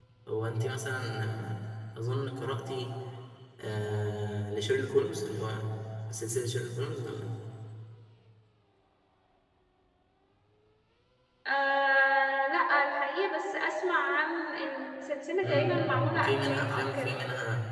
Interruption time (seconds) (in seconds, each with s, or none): 15.4 s